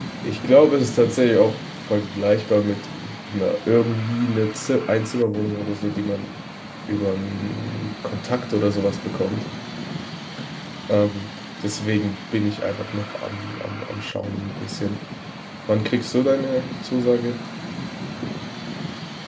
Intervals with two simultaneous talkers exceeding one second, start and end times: none

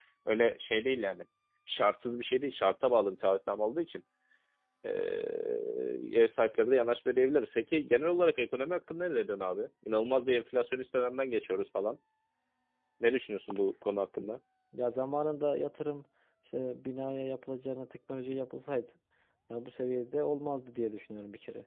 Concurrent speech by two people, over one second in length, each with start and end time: none

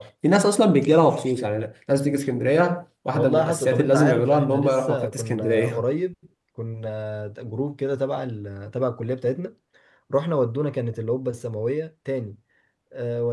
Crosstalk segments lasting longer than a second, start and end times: 3.1-5.8

